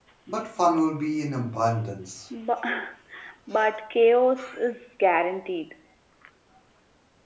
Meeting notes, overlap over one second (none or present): none